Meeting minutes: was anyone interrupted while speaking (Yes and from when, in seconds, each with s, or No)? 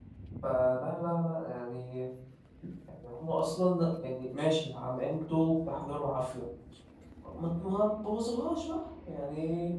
No